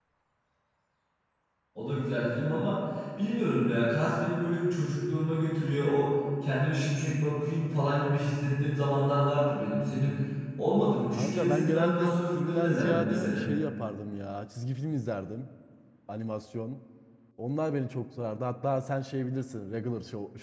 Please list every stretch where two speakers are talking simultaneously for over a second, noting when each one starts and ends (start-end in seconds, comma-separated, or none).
11.2-13.4